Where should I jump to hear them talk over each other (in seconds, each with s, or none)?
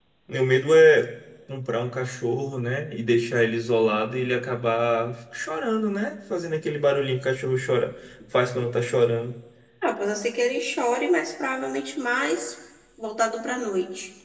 none